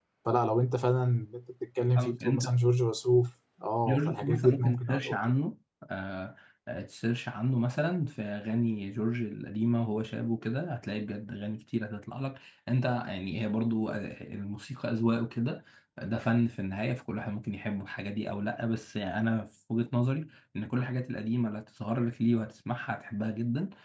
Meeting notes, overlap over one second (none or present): present